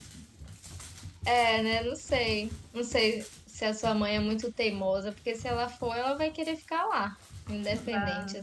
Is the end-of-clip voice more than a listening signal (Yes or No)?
Yes